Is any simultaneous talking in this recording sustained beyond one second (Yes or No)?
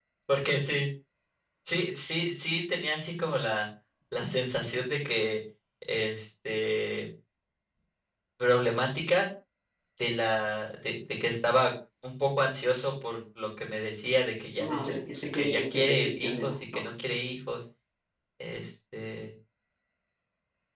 Yes